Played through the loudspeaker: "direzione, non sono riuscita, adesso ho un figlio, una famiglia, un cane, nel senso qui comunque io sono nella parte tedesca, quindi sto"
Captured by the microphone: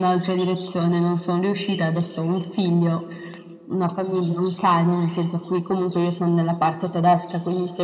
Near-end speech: none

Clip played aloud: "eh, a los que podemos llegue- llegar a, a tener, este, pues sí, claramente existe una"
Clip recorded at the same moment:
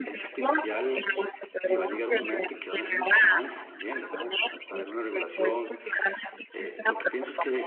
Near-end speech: present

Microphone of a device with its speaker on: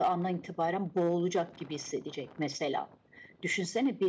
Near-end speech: none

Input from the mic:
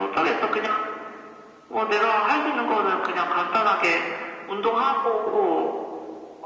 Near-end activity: none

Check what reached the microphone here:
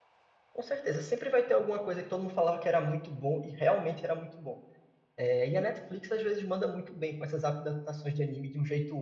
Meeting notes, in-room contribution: present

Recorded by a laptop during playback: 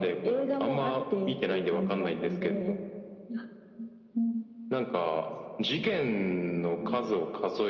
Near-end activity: none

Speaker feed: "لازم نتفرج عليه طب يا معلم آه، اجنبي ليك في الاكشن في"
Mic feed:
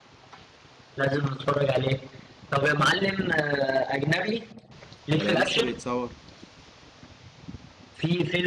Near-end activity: present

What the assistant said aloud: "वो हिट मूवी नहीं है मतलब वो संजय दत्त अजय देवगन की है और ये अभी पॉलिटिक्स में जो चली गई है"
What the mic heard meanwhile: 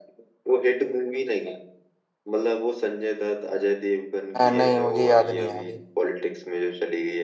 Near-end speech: present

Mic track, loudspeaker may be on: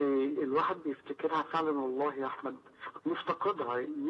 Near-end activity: none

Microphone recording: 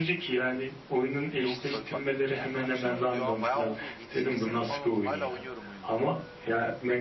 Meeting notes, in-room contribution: present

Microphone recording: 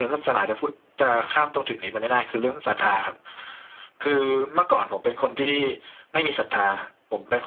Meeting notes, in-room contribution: none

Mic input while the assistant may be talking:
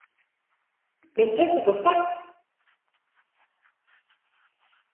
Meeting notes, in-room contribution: present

